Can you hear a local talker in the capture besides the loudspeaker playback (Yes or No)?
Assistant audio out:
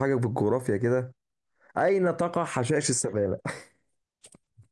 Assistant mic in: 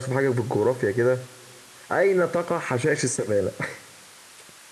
No